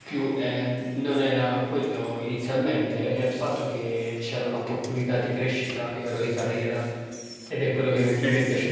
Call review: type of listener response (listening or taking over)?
taking over